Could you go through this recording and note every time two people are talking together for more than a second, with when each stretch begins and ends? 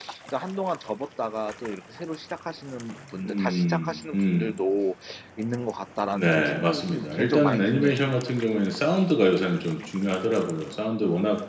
3.2-4.5, 6.1-8.0

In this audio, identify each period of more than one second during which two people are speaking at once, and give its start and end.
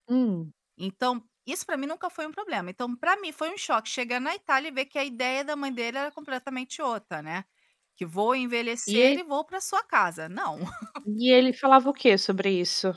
none

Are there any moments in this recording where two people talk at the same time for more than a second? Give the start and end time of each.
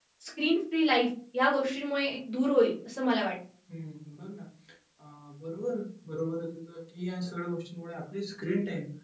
none

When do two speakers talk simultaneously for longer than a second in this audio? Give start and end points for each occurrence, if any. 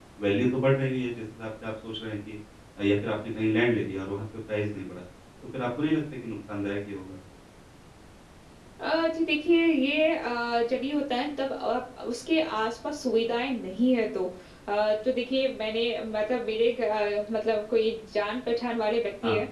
none

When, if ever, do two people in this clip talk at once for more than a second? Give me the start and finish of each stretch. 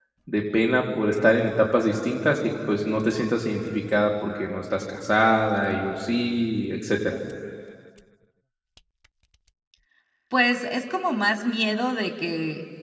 none

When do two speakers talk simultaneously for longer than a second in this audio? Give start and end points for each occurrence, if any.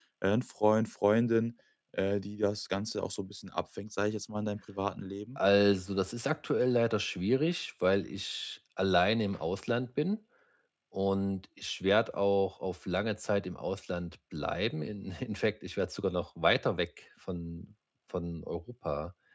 none

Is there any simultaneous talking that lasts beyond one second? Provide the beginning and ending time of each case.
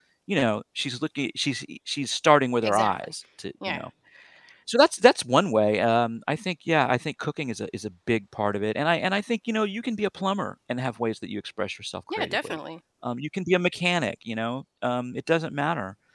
none

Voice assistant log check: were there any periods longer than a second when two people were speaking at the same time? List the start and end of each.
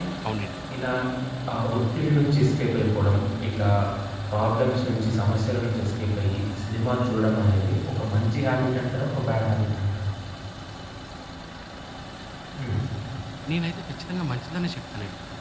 none

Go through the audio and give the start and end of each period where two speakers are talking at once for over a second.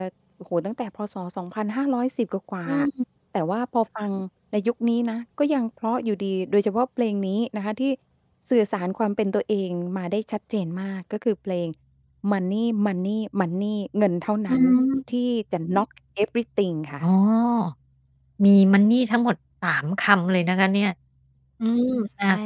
none

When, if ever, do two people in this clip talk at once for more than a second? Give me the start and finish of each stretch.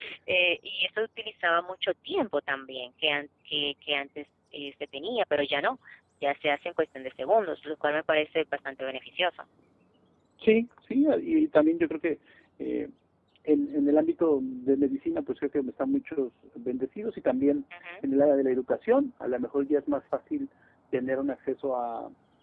none

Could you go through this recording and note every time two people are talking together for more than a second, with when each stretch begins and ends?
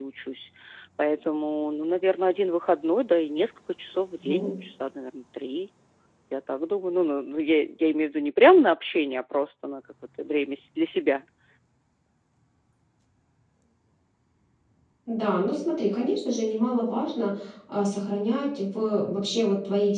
none

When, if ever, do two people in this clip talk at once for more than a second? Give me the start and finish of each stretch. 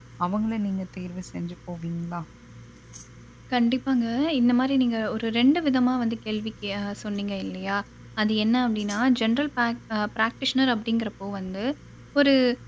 none

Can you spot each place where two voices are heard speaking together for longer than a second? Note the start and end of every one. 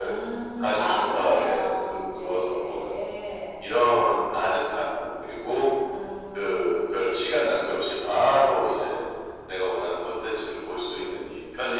0.6-3.0

